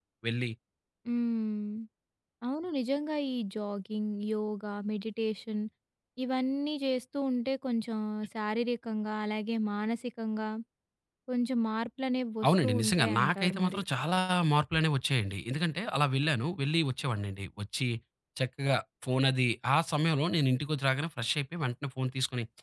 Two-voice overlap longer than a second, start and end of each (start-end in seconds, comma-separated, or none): 12.5-13.8